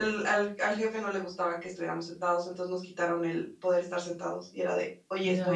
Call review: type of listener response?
listening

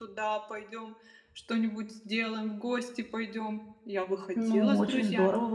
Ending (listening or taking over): taking over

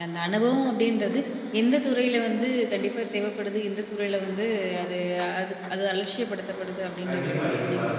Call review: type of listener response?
taking over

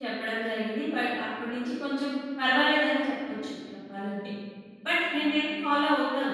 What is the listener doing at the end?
listening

